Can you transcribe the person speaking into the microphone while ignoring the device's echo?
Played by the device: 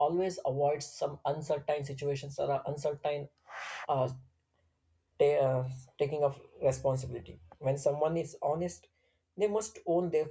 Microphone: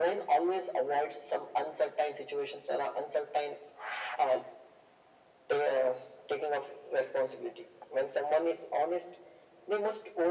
none

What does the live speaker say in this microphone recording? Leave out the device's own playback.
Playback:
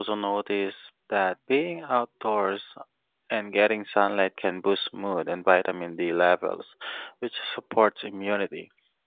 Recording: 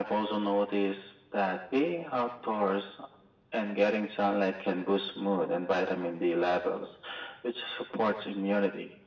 none

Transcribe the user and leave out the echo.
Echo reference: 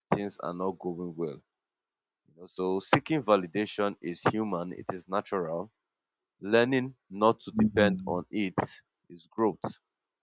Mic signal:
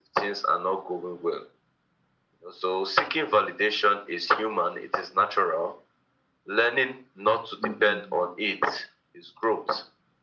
none

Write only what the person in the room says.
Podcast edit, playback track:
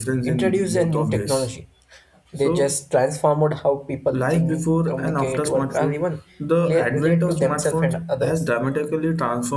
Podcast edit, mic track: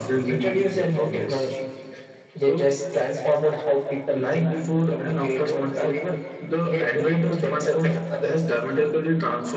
none

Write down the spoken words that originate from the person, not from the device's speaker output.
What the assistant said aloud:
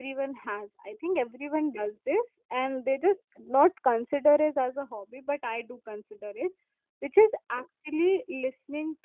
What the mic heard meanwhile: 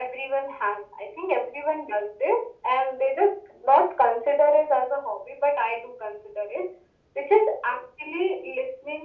none

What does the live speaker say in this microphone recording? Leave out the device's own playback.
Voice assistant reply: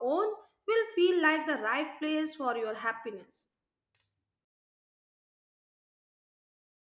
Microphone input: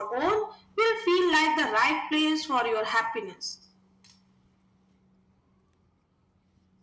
none

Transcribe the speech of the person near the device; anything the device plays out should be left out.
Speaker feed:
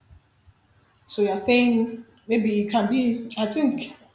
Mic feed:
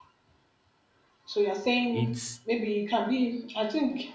it's

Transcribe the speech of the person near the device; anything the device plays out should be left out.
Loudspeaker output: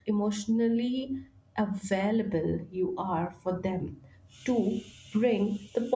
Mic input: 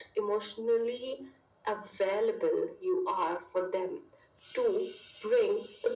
none

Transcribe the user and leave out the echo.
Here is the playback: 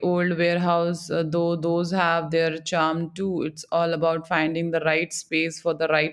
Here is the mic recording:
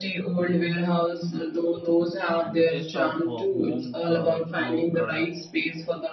and the taste of uh, home uh, grow product

